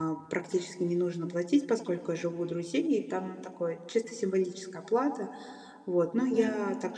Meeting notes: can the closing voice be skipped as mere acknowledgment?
Yes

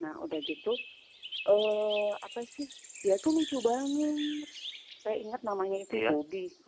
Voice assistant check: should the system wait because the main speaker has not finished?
Yes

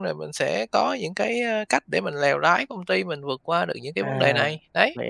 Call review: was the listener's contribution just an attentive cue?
No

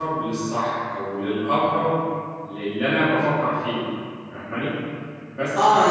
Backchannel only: No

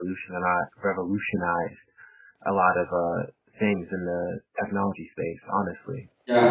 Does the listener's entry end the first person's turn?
Yes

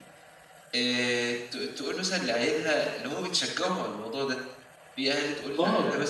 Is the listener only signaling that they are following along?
Yes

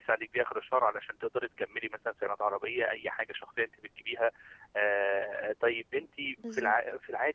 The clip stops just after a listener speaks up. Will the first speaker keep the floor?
Yes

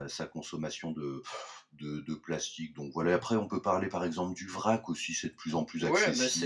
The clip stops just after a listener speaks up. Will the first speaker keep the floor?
No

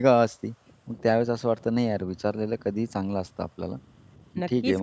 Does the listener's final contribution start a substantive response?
Yes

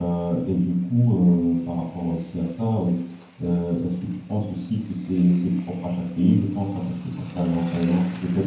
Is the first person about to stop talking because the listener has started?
No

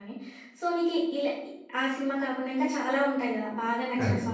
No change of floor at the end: Yes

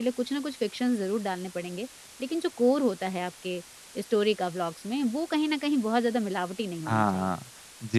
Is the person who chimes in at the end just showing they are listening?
No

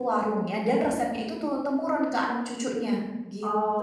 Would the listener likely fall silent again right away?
No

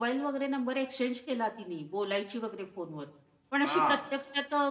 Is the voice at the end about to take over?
No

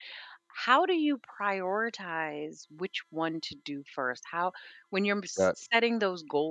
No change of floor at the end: Yes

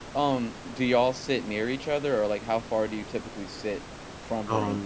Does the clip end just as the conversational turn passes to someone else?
Yes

